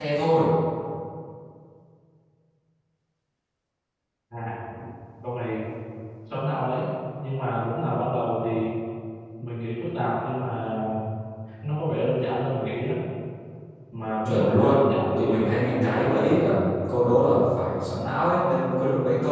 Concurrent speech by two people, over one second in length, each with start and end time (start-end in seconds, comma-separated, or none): 14.2-16.4